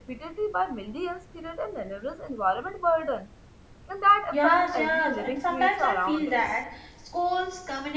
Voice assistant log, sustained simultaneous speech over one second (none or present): present